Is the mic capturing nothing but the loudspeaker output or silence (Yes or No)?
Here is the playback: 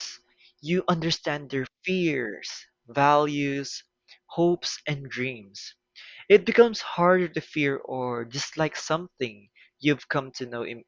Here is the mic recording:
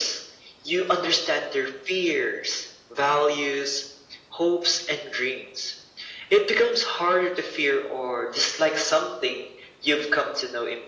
Yes